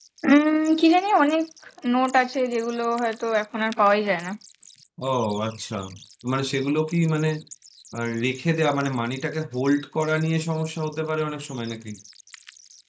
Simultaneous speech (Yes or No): No